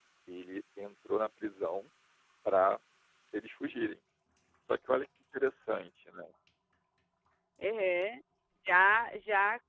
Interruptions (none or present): none